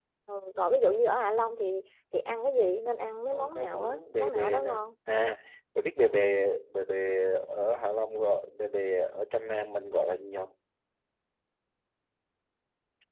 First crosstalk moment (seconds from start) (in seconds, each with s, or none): 3.3 s